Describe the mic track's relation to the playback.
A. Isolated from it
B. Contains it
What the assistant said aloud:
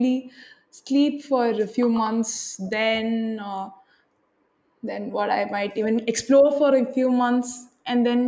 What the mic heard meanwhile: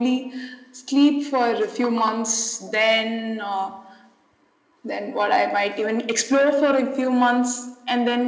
B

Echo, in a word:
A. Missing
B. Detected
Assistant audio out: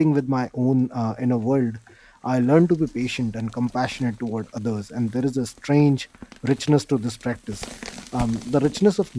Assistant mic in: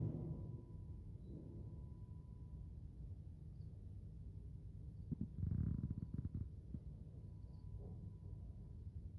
A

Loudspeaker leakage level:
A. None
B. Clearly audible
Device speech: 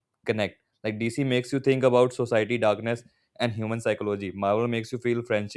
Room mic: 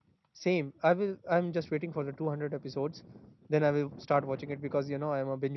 A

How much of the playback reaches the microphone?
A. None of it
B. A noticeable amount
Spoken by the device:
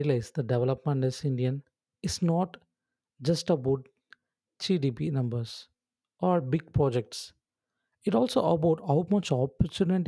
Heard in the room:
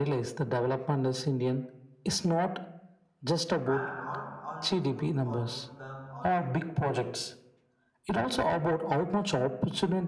B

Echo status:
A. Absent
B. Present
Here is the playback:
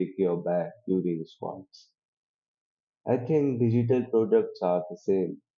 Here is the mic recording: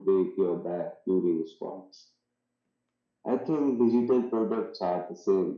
B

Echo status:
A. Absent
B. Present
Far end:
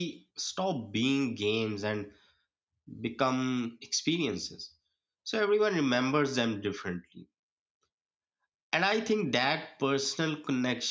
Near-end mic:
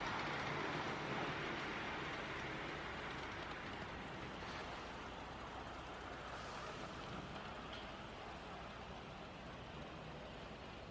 A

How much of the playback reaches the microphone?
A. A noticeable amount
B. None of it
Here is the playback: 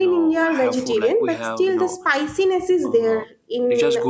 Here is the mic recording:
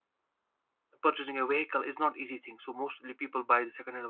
B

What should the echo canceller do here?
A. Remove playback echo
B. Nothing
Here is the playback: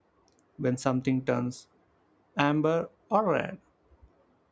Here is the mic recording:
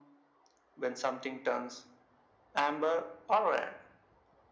A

